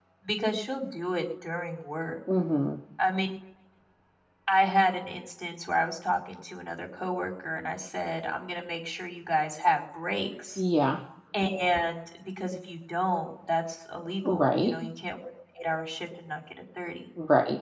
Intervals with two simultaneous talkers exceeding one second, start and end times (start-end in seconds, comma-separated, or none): none